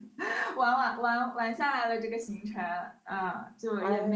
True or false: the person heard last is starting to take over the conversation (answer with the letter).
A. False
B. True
A